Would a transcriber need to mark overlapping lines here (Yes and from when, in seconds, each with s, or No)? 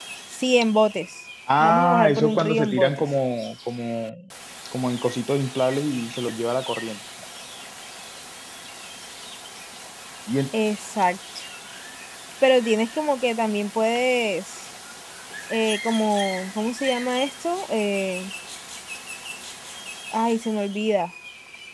Yes, from 1.5 s